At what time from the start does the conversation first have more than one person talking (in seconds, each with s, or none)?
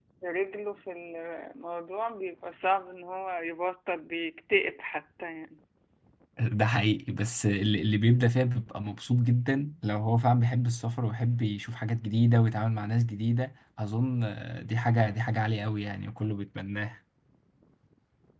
none